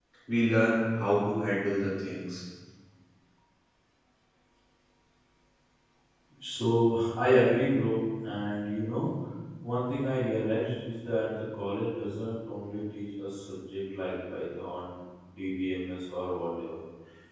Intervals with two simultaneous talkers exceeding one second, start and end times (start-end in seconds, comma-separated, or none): none